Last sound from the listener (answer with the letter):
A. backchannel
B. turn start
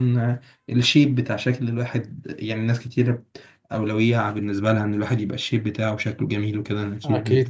B